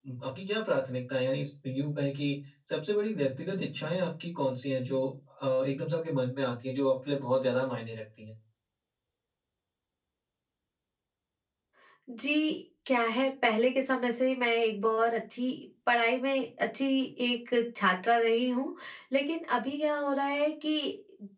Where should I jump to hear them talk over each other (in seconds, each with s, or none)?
none